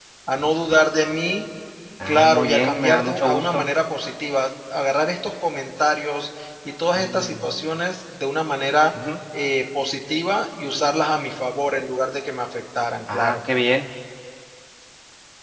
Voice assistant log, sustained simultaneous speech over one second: present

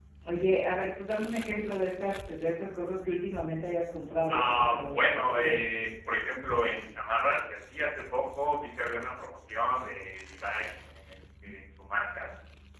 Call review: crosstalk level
present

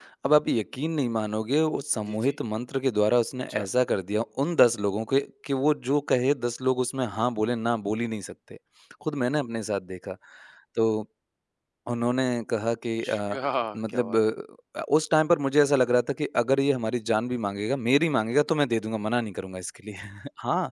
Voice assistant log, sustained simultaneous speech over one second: none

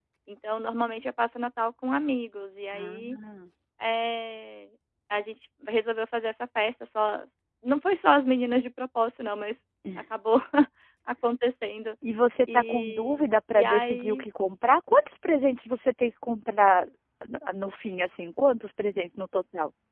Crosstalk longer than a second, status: present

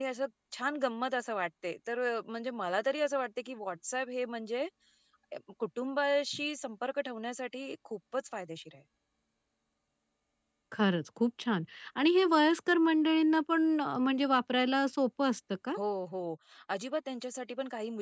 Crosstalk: none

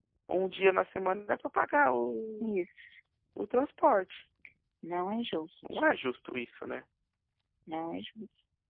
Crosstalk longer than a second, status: none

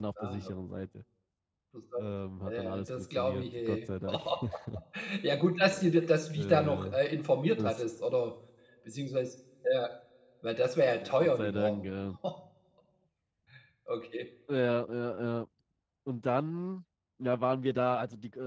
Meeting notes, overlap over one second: present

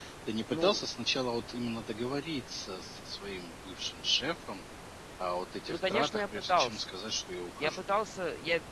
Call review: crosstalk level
present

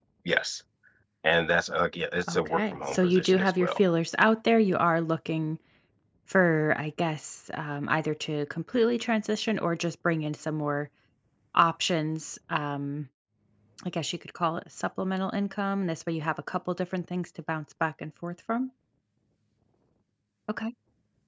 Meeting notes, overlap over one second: present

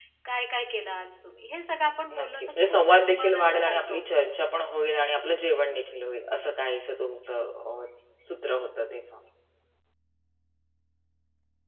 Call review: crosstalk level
present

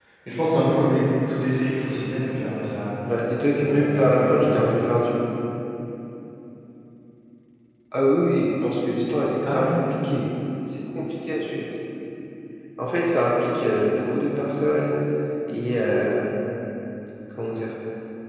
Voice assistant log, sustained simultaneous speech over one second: present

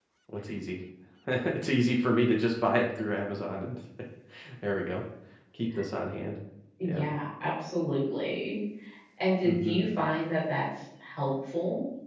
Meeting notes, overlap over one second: none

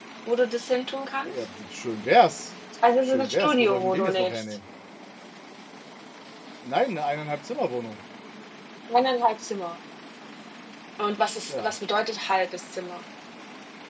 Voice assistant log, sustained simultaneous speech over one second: present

